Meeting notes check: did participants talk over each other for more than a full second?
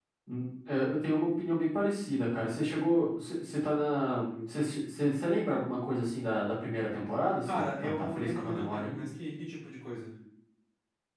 Yes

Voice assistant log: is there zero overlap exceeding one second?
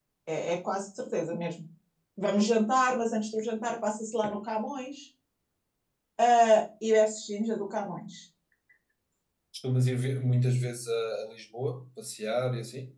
Yes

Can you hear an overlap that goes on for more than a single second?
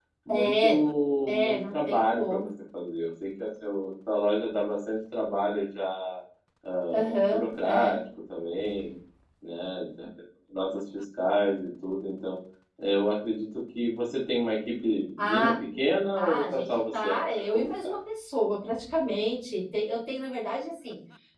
Yes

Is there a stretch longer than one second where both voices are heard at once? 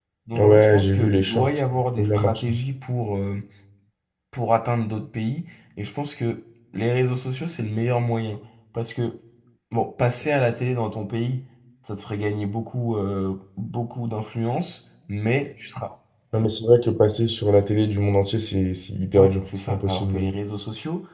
Yes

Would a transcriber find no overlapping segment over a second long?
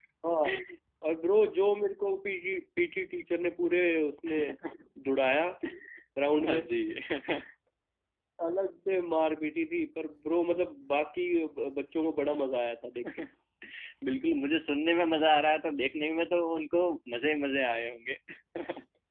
Yes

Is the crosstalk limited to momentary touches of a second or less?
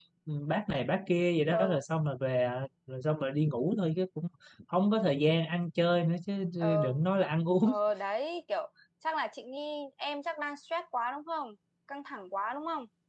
Yes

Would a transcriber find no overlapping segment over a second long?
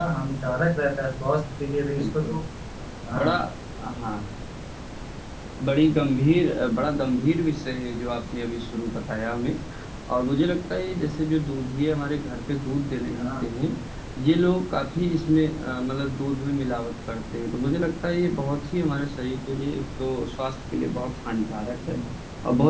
Yes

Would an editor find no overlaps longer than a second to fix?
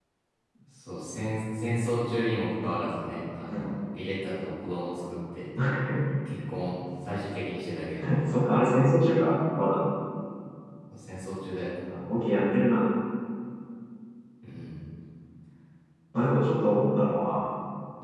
Yes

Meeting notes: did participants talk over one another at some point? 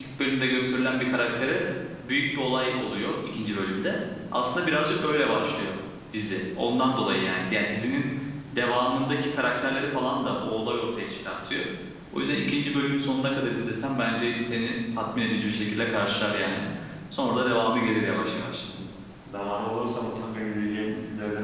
No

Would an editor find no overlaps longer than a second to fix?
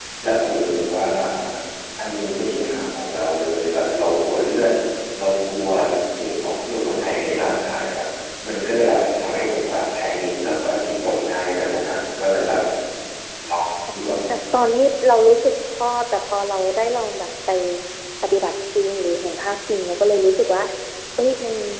Yes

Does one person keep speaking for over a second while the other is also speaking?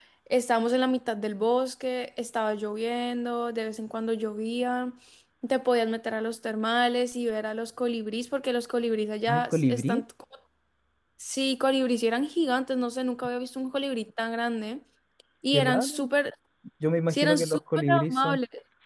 Yes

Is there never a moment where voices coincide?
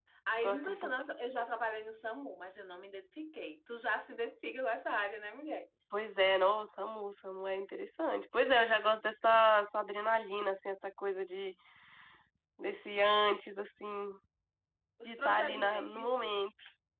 No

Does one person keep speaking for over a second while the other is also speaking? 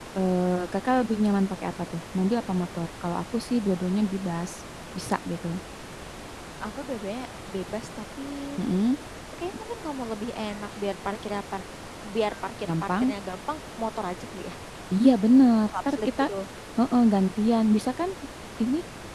No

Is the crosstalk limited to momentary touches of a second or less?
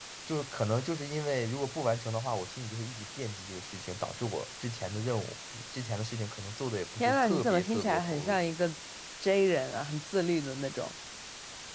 No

